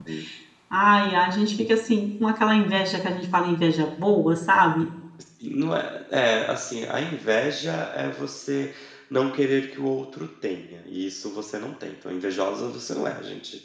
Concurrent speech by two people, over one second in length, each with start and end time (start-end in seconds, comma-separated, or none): none